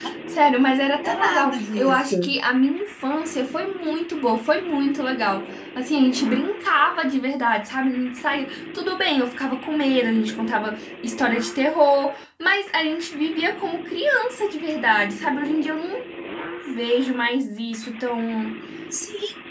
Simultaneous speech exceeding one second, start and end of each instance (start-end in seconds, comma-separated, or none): 1.0-2.3